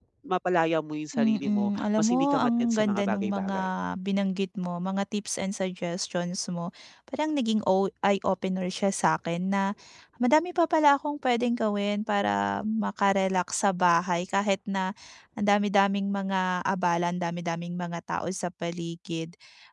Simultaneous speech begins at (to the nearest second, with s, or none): 1 s